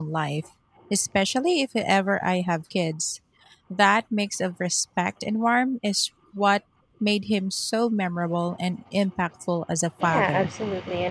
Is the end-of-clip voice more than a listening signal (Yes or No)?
Yes